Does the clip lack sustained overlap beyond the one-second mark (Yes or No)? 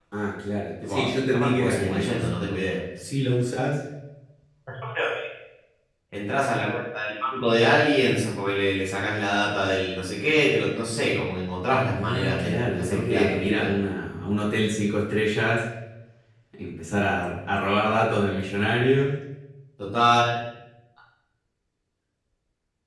No